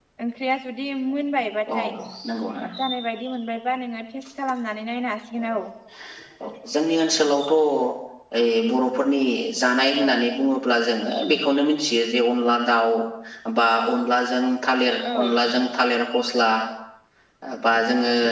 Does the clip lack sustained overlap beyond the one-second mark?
Yes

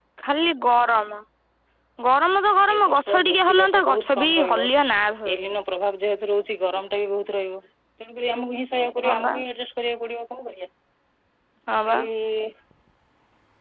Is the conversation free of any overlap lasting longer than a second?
No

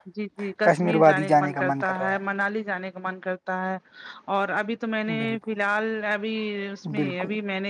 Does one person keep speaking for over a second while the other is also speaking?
Yes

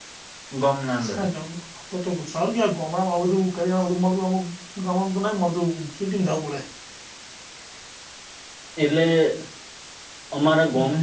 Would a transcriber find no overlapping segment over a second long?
Yes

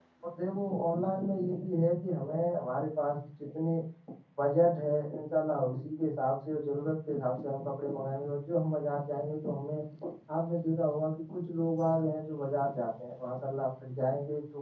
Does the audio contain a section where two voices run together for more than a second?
No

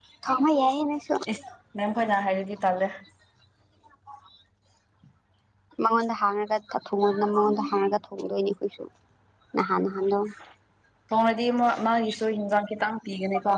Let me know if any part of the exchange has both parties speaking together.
No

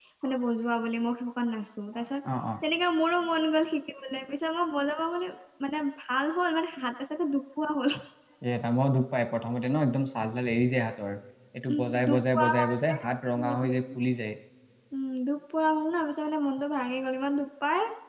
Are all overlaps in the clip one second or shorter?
No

